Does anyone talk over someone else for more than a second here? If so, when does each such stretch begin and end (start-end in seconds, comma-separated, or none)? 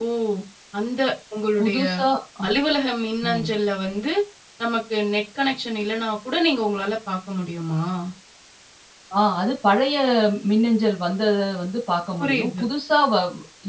none